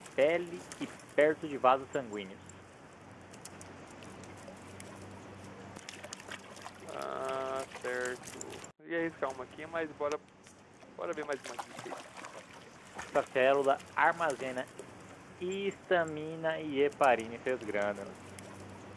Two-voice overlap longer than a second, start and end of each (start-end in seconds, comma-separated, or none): none